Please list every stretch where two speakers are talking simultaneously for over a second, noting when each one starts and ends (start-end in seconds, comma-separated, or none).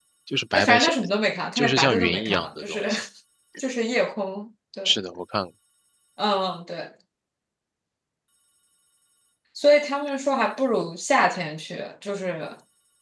1.6-2.8